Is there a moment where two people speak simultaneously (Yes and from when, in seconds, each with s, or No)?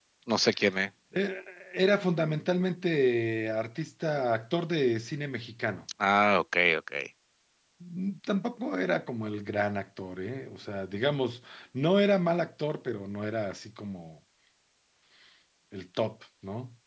No